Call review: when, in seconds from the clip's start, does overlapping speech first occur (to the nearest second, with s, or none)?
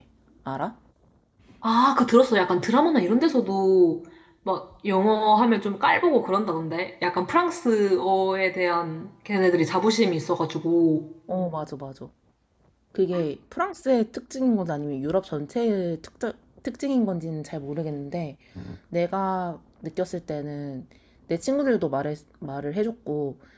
none